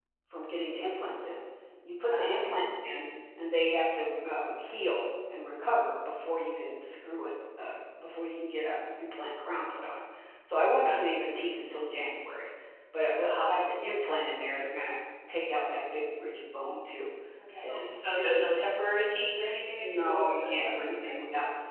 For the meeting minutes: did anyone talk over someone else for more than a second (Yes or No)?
Yes